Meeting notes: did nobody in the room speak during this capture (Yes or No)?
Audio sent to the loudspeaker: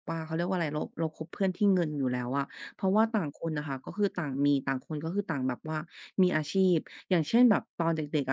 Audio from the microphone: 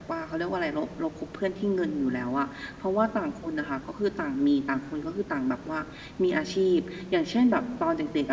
Yes